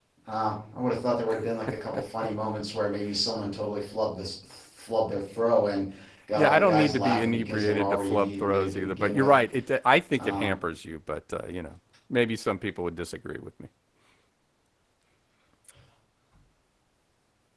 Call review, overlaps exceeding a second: present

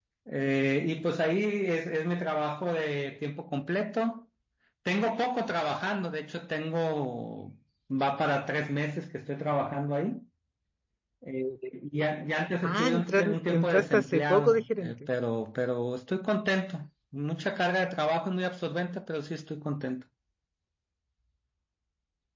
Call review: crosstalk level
present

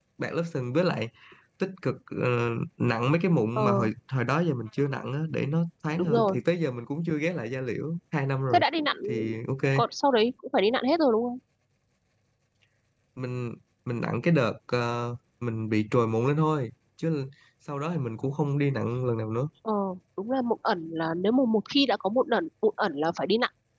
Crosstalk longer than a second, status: none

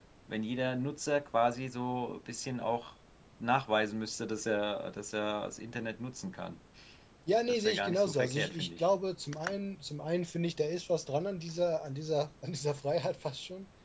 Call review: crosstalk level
present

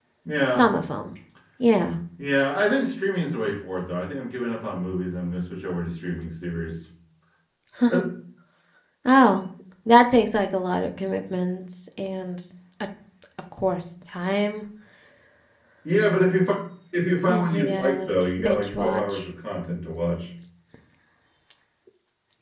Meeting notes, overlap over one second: present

